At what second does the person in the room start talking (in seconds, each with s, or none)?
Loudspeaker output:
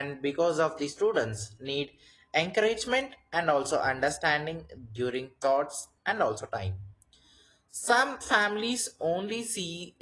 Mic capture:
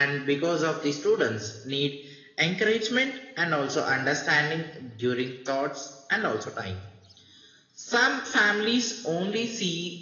none